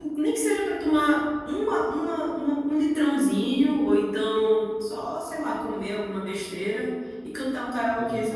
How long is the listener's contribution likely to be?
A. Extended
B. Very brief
B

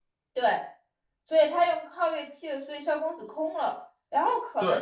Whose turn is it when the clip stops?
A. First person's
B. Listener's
A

